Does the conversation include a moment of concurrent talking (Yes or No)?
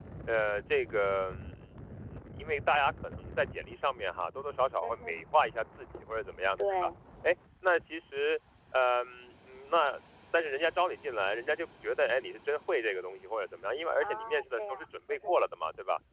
Yes